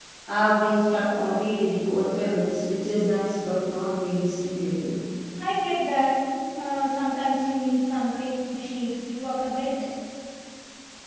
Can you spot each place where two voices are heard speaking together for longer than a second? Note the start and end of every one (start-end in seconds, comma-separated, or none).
none